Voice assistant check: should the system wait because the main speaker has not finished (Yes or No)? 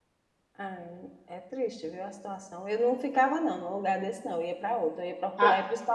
Yes